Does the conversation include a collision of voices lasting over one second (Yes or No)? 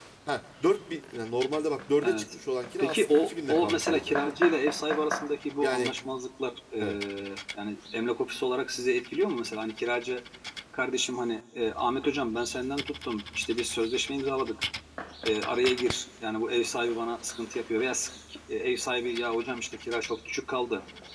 Yes